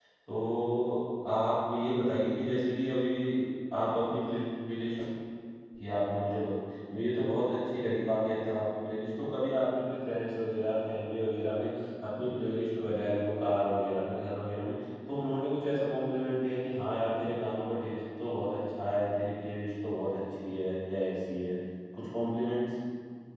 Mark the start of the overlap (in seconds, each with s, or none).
none